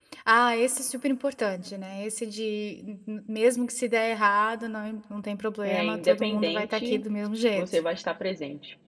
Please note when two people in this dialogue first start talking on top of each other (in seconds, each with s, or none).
5.6 s